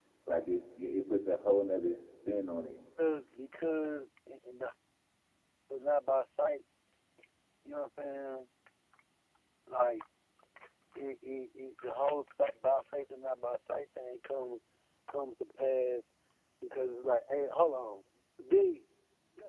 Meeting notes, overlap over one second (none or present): none